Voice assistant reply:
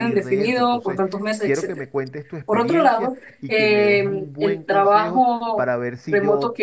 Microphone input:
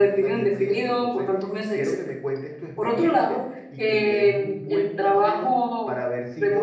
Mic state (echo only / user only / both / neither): echo only